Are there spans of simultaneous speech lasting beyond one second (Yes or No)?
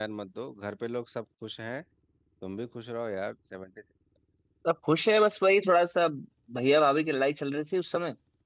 No